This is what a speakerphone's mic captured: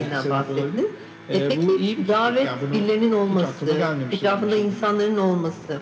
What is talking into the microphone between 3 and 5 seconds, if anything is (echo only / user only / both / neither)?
echo only